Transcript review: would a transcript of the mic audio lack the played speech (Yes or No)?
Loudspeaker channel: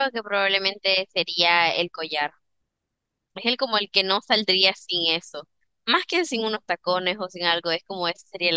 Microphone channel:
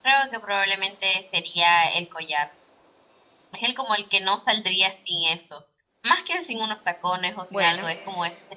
No